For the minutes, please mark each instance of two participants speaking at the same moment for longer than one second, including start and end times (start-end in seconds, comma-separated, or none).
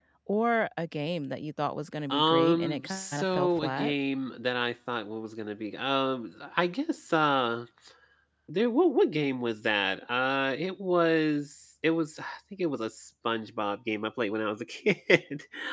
2.1-3.9